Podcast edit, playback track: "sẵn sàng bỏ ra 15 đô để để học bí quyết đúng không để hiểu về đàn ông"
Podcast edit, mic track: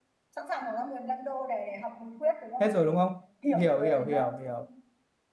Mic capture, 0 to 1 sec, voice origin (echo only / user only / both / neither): echo only